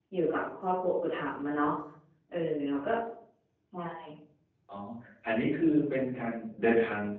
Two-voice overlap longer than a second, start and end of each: none

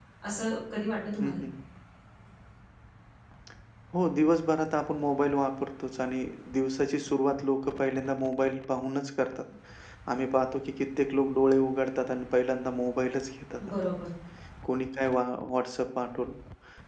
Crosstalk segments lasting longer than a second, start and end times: none

